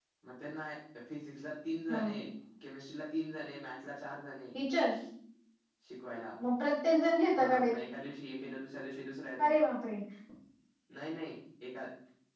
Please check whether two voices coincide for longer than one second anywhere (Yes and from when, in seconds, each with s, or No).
No